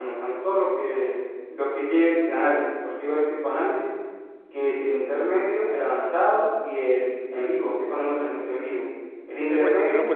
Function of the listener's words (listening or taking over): taking over